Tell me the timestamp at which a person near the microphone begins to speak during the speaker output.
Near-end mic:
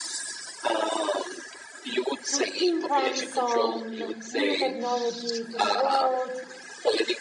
2.3 s

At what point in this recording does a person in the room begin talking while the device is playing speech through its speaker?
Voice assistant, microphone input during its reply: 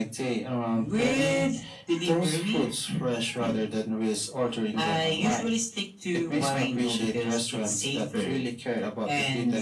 none

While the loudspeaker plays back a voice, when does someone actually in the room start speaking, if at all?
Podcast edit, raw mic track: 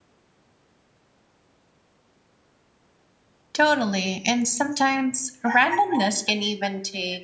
3.5 s

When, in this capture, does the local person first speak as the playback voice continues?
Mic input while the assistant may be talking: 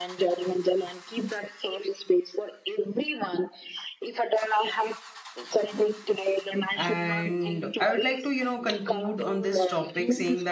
6.8 s

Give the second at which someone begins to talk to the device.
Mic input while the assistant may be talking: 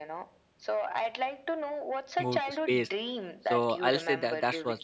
2.2 s

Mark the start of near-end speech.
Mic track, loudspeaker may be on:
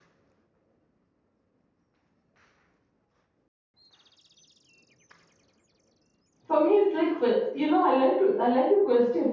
6.4 s

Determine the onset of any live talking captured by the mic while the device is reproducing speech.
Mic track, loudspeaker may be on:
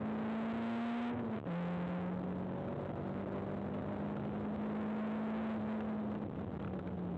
none

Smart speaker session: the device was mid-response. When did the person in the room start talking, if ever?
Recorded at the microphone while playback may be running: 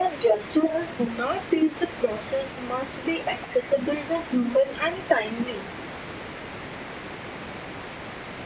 none

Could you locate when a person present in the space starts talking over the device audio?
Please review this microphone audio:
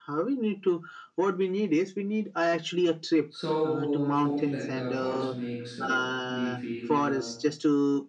3.3 s

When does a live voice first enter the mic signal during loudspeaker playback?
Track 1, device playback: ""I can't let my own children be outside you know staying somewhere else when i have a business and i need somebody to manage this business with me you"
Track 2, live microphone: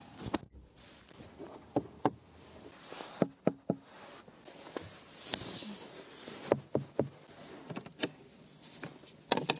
none

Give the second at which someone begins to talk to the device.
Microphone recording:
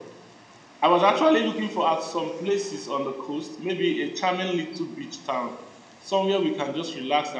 none

